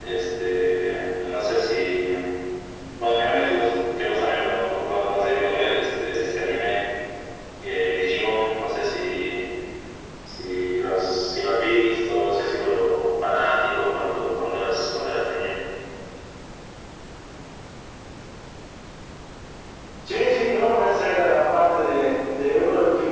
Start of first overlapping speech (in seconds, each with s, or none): none